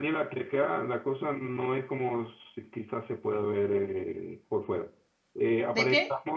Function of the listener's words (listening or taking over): listening